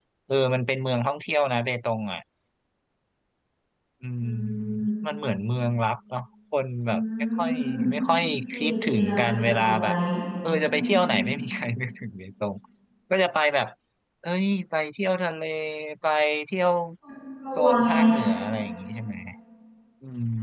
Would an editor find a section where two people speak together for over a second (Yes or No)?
Yes